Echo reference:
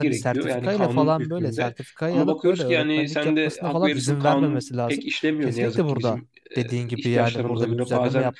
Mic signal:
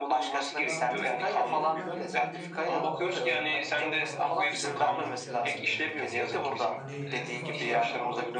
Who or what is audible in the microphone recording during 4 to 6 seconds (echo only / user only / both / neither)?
both